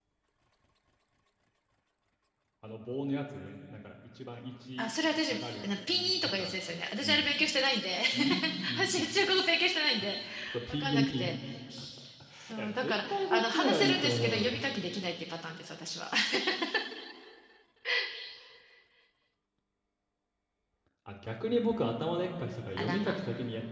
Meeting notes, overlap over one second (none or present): present